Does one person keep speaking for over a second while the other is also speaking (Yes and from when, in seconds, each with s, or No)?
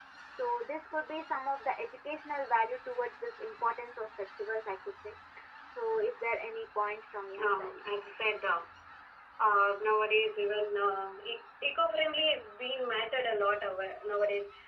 No